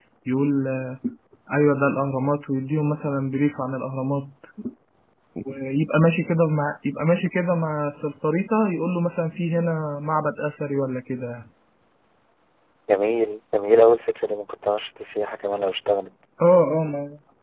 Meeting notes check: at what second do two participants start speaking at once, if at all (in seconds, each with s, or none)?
none